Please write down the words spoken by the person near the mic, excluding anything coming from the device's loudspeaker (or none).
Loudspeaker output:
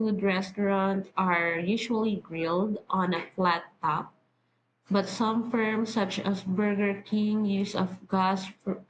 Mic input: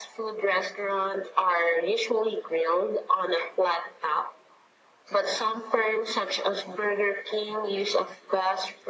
none